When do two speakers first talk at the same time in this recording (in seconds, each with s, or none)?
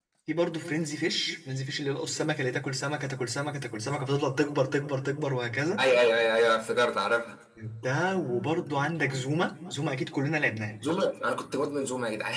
none